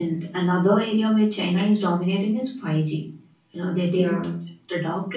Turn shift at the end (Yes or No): No